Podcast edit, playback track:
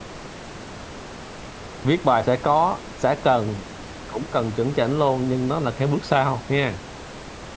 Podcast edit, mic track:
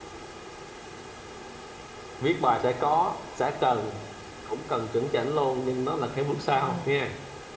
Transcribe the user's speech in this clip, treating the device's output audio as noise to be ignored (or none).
ừ